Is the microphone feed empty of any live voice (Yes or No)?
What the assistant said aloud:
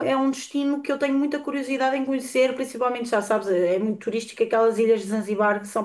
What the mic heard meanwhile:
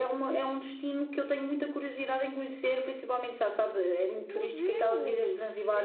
No